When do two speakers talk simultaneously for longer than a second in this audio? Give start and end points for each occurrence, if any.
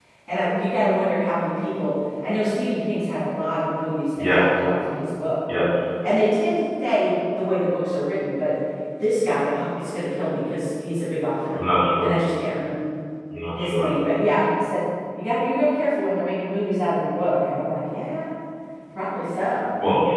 none

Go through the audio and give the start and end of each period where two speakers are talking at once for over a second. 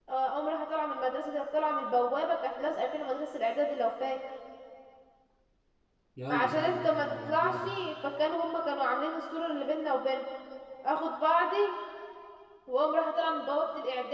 6.3-7.7

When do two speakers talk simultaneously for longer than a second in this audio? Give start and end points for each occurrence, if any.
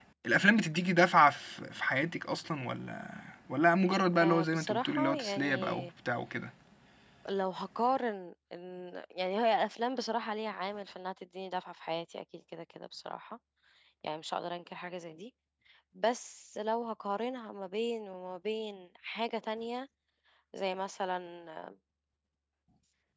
4.2-5.9

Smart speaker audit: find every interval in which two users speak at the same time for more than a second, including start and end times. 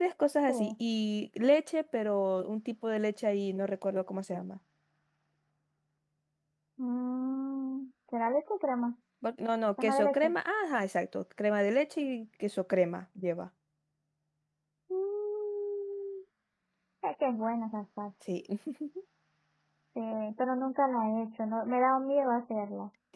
none

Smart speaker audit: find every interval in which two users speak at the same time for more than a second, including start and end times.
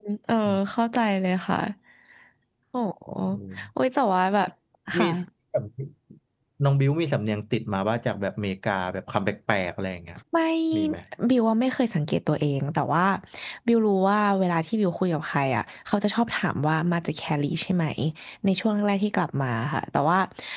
none

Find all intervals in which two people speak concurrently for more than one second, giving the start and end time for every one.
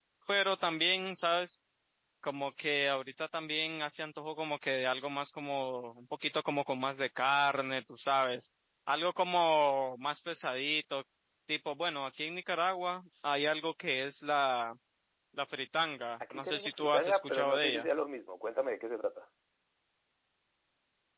16.3-17.9

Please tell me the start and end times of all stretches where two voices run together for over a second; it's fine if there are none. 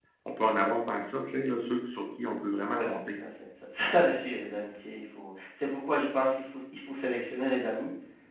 none

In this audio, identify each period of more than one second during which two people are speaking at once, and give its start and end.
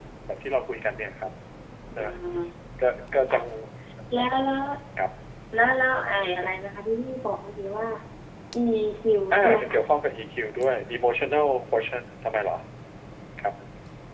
none

